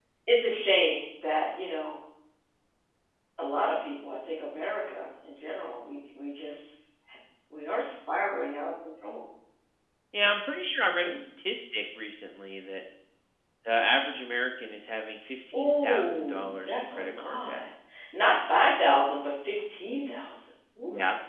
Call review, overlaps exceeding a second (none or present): present